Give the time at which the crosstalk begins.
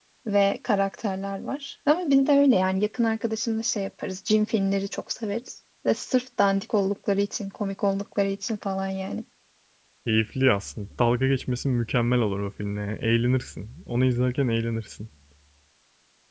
none

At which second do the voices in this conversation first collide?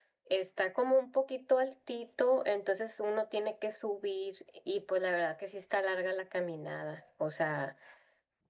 none

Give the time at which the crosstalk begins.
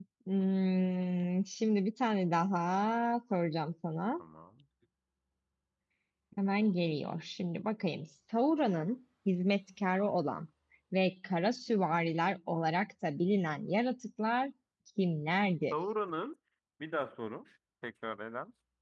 none

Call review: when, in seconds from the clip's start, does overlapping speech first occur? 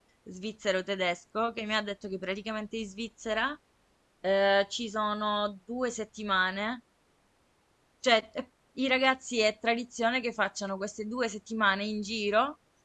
none

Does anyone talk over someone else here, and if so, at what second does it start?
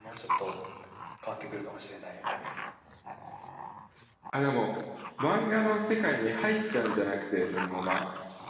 none

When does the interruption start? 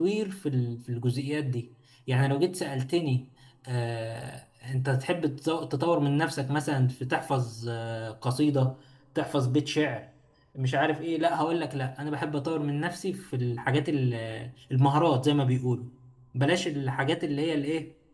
none

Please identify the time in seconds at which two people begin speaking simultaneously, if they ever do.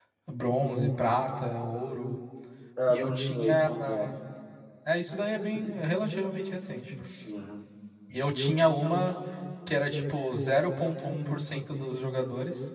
2.9 s

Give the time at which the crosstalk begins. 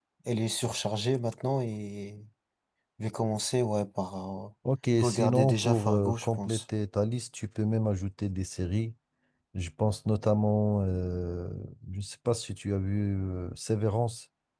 5.0 s

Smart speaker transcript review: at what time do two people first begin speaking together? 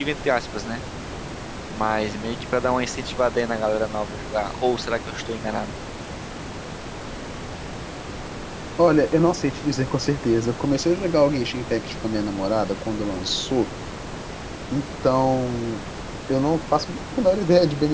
none

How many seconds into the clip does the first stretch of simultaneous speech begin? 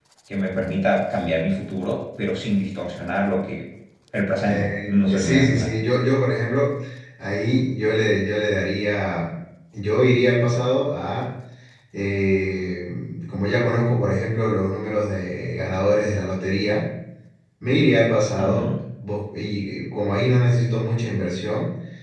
4.4 s

